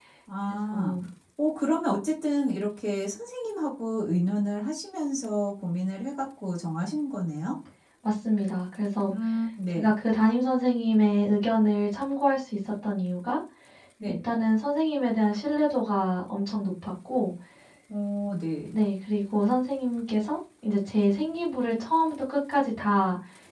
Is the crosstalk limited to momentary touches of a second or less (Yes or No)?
Yes